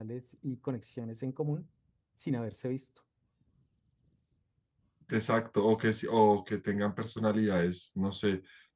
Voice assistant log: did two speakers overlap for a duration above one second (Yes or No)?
No